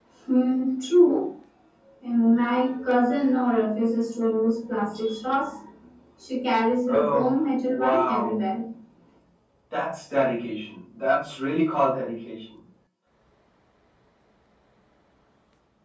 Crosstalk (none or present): present